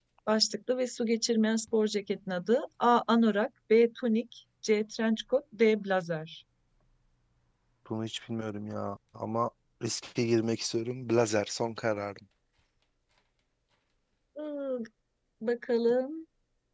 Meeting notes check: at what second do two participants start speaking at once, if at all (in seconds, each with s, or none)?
none